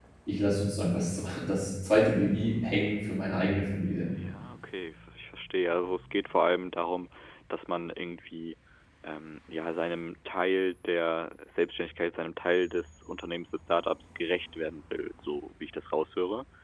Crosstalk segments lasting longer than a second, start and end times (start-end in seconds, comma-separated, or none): none